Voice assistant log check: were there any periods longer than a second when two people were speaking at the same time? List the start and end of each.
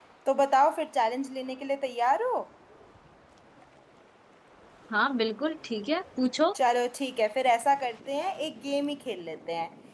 none

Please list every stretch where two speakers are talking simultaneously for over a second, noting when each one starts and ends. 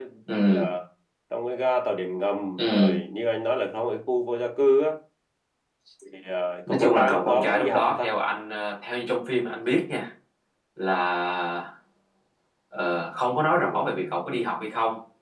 6.7-8.1

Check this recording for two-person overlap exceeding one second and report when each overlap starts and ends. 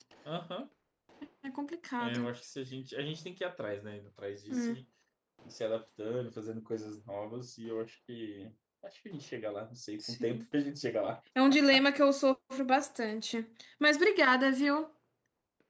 none

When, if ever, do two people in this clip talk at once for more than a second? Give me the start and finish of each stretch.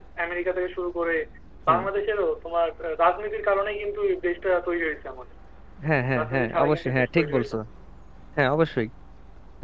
6.2-7.5

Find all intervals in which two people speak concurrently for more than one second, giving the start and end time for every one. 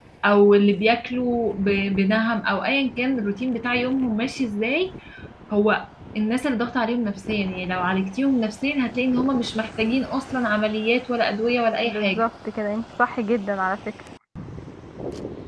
none

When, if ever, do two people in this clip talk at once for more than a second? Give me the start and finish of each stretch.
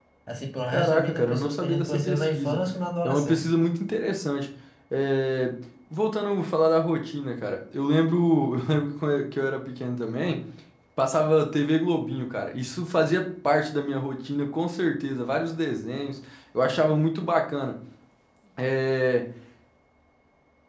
0.7-2.6

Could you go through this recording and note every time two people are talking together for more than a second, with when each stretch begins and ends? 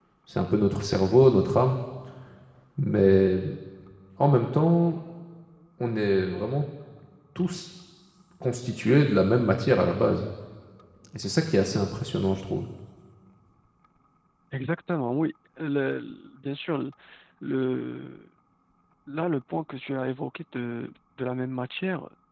none

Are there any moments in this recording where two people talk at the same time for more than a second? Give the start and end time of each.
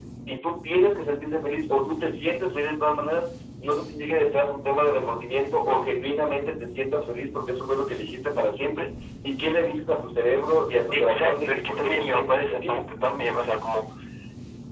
10.9-12.8

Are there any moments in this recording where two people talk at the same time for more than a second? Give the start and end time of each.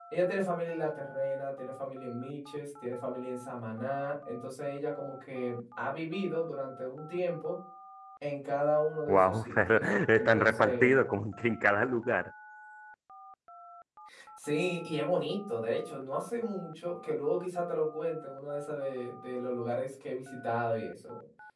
9.1-11.0

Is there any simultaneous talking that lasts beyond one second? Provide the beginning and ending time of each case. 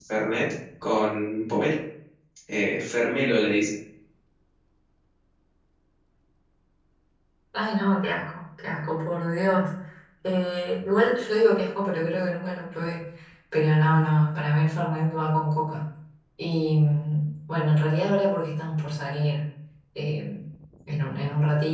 none

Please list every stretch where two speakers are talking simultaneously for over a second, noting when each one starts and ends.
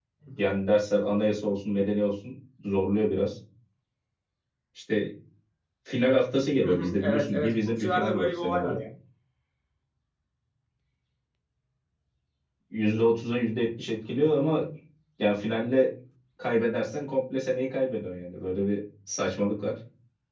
6.6-8.8

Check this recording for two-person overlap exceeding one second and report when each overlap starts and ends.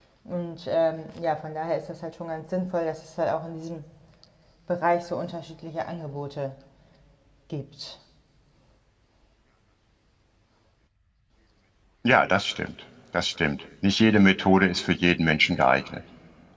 none

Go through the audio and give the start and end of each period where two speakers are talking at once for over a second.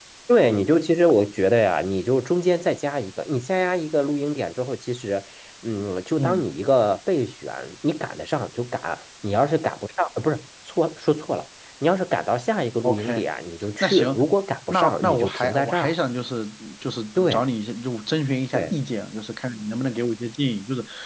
14.7-15.9

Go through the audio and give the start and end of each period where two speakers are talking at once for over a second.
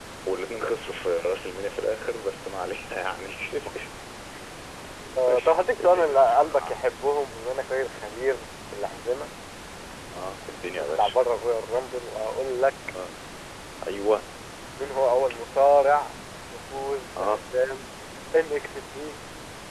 5.3-6.8

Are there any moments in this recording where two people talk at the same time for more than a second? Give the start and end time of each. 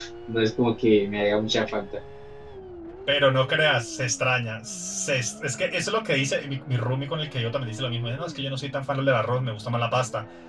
none

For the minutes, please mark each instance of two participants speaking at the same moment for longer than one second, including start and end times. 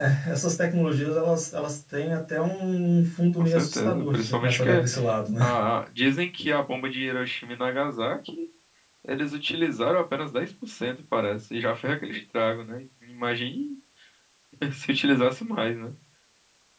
3.4-4.8

